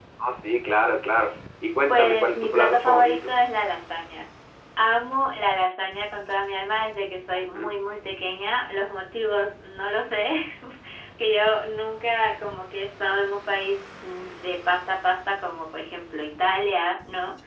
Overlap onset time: 2 s

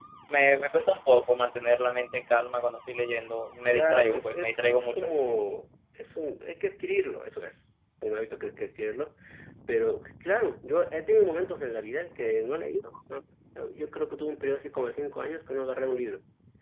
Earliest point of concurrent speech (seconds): 4 s

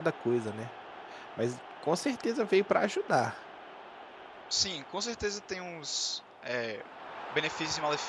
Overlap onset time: none

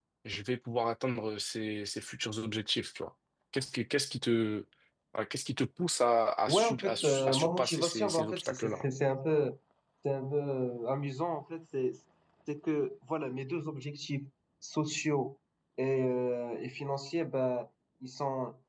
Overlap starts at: 6 s

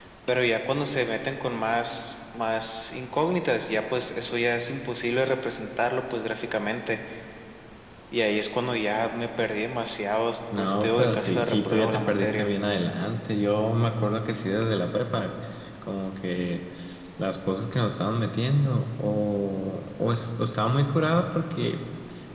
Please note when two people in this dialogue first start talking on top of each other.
11 s

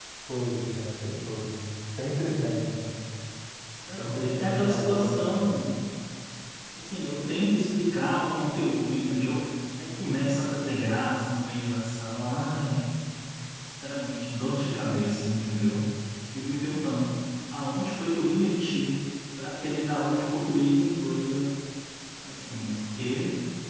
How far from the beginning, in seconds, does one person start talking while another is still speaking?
4 s

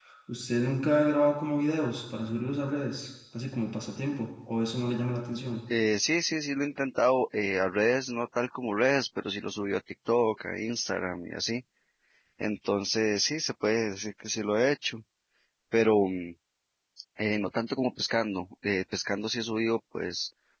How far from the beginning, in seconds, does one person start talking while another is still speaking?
none

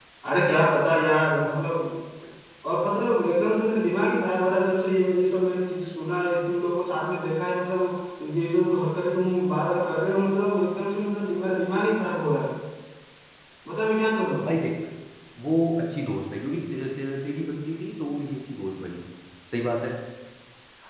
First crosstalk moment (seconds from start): none

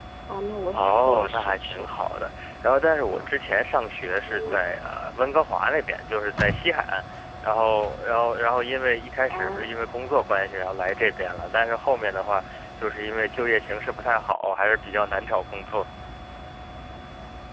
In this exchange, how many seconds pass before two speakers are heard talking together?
1 s

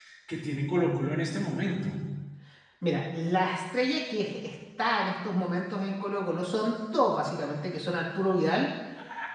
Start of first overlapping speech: none

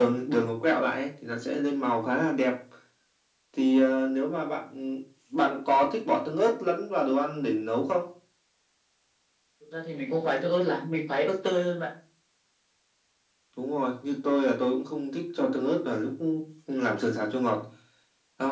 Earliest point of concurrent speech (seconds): none

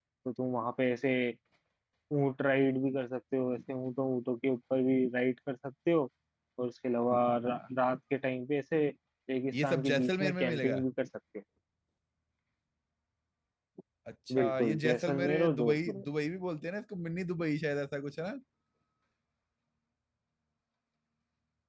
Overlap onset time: 10 s

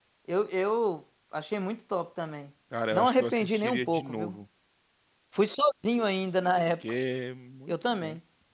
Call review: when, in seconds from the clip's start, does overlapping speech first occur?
3 s

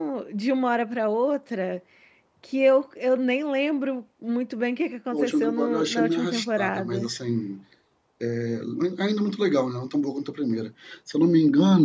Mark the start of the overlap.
5 s

